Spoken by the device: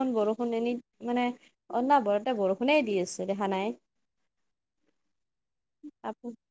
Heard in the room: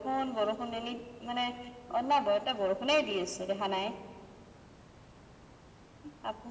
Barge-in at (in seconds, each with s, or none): none